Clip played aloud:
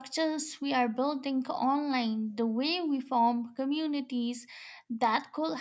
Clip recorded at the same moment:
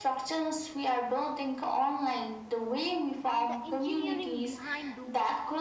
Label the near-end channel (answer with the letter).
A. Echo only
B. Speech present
B